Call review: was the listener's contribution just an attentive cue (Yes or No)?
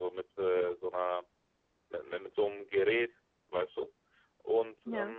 Yes